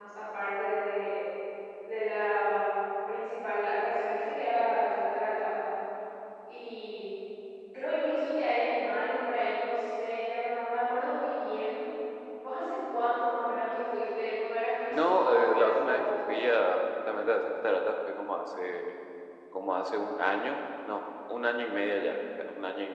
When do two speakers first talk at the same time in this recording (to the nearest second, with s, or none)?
15 s